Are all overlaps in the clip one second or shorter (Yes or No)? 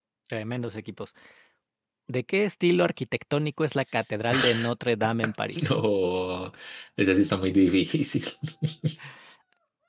Yes